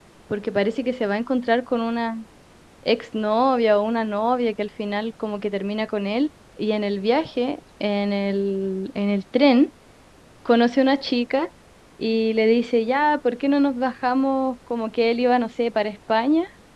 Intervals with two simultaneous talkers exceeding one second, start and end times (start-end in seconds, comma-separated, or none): none